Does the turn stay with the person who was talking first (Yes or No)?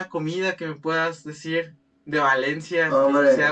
No